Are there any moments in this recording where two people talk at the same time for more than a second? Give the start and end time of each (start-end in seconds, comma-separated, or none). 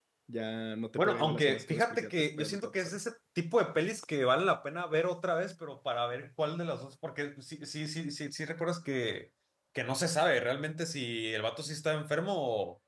1.0-3.0